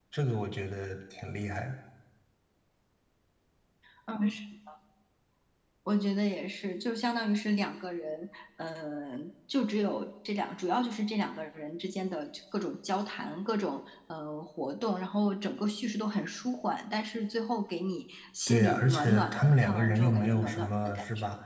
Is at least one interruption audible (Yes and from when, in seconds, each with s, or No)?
Yes, from 18.5 s